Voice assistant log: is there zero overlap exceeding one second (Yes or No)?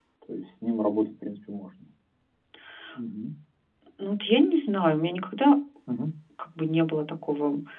Yes